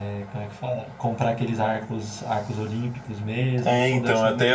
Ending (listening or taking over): taking over